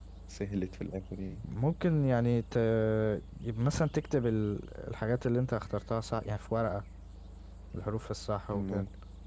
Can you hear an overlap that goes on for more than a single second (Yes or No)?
No